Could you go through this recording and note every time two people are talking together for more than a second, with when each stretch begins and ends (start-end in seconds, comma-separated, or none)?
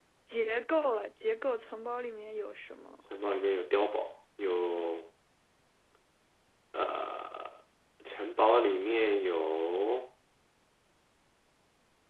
none